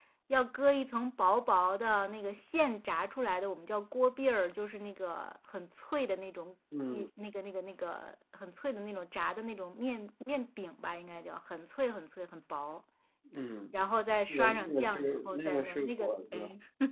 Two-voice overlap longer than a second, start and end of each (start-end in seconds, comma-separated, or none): 14.3-16.4